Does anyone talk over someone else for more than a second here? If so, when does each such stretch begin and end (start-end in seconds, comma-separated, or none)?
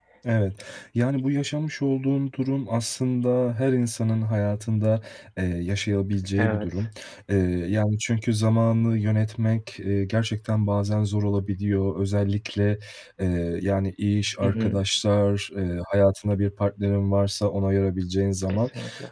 none